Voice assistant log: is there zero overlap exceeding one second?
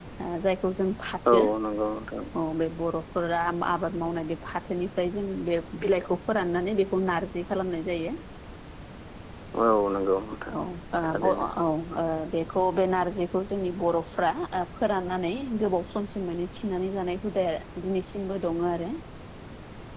Yes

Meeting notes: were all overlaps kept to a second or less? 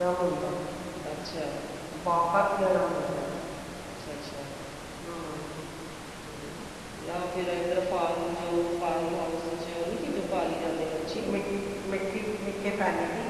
Yes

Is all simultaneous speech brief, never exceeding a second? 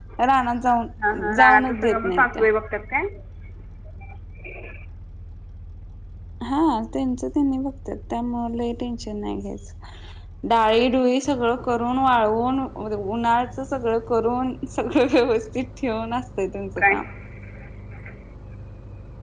No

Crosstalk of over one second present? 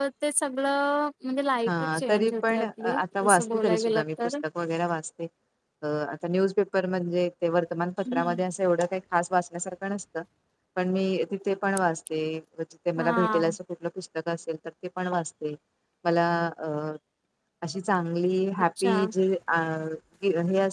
Yes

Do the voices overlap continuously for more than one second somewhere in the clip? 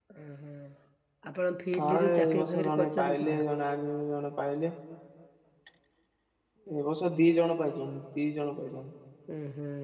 Yes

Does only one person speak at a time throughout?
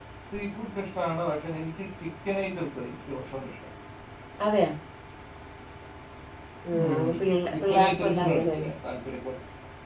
No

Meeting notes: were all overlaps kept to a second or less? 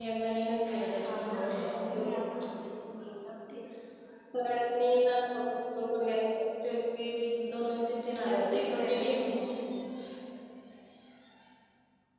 No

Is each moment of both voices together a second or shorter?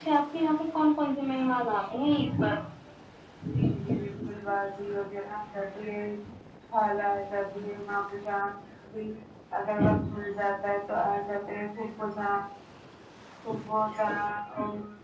Yes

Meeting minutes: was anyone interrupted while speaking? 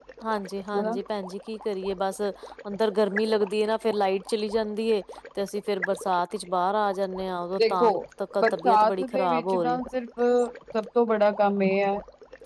Yes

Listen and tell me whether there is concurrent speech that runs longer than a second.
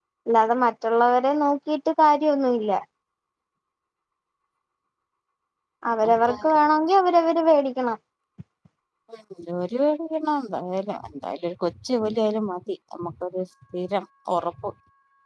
No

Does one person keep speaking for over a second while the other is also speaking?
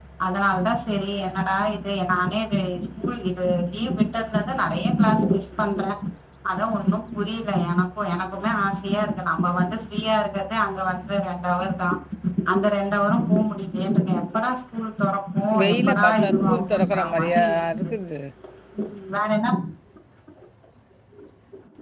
Yes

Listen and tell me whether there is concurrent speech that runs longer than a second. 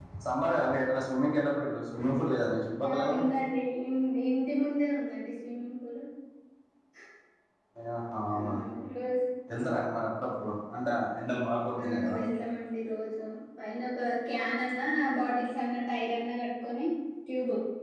No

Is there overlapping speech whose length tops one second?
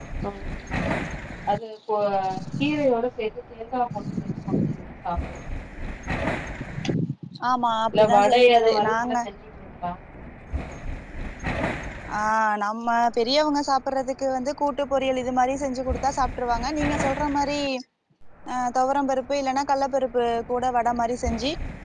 Yes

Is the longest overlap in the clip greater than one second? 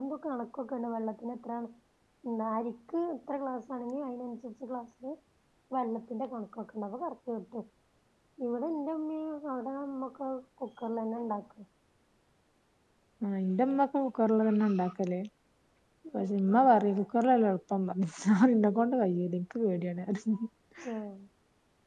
No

